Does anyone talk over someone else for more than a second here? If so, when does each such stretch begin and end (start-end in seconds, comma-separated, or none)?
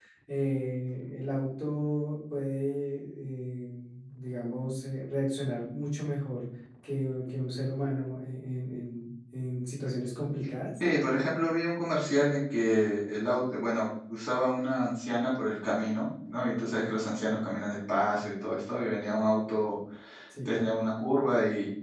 none